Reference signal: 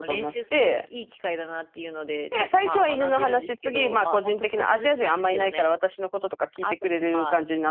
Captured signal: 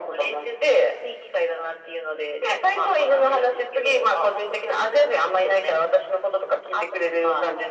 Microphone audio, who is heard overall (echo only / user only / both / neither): echo only